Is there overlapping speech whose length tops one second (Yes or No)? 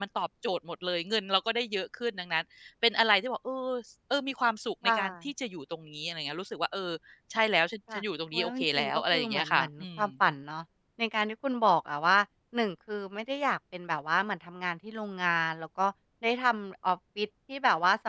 Yes